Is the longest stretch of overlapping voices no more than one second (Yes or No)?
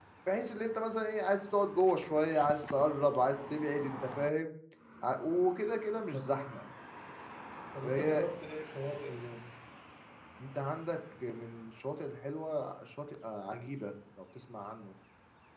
Yes